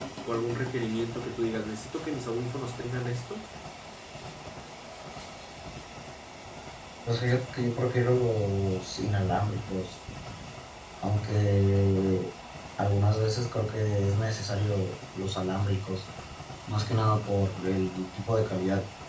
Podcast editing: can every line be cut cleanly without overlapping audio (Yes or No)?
Yes